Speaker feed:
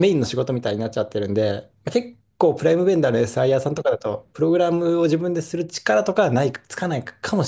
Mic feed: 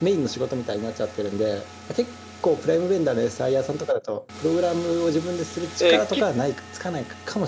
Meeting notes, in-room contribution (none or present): present